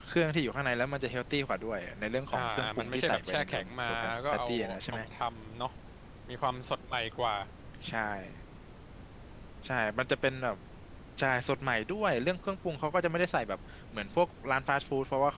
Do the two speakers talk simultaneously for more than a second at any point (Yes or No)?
Yes